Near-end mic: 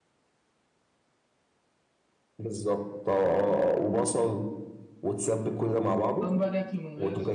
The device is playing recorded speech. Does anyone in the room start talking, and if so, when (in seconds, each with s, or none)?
6.0 s